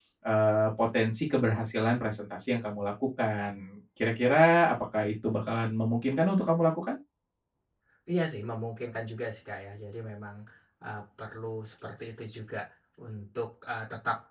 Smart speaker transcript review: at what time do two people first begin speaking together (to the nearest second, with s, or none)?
none